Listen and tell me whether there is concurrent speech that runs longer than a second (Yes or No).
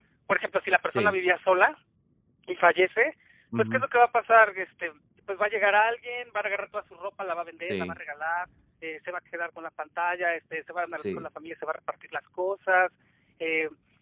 No